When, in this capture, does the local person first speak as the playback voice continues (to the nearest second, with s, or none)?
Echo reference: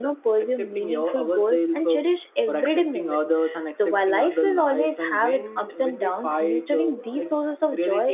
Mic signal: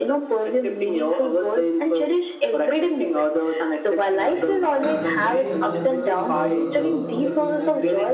4 s